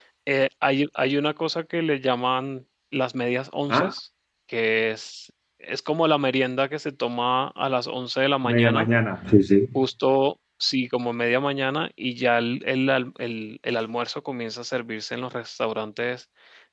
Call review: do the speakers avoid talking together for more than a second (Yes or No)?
Yes